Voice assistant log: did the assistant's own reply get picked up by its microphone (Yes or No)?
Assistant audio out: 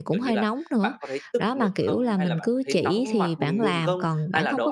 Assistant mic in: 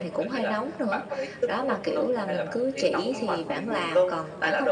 Yes